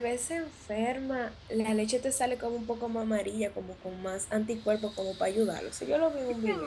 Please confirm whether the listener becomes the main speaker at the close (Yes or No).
Yes